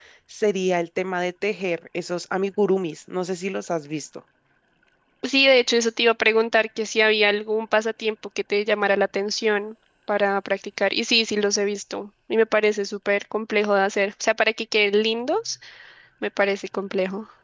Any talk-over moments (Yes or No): No